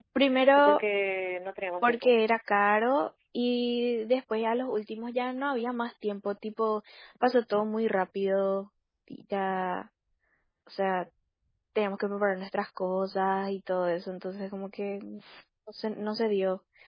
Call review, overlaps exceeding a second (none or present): none